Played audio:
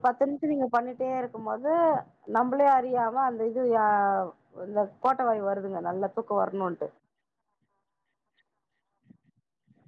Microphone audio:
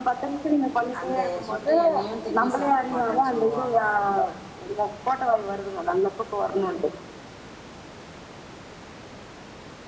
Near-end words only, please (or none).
அந்த சுட்டை எண்ணெயையு திருப்பி சாப் ப்பிட மாட்டேன்னு சொல்லுவாங்க